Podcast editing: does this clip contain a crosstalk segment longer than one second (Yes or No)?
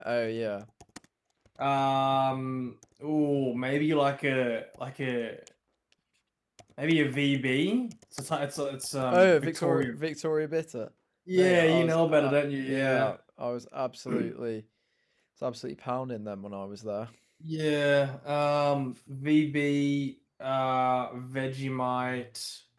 Yes